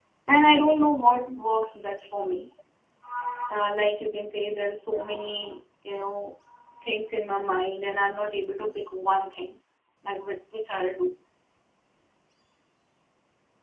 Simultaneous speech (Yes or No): No